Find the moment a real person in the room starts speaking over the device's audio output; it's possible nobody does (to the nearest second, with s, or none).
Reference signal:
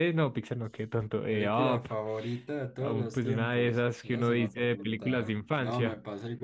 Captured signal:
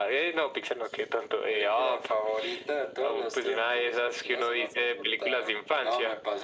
none